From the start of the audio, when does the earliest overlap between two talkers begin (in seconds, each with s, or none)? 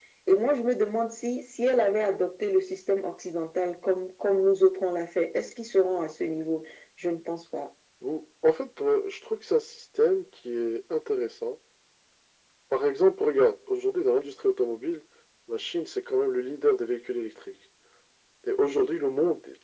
none